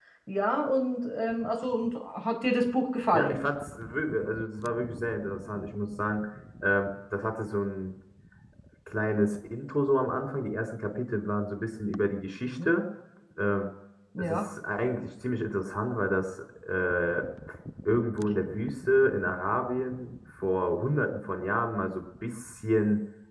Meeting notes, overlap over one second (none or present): none